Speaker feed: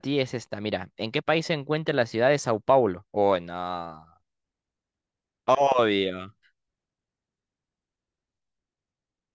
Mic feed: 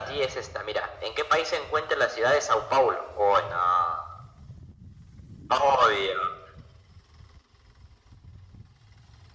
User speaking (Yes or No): No